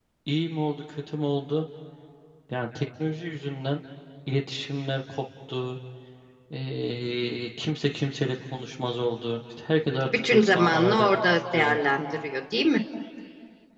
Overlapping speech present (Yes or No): Yes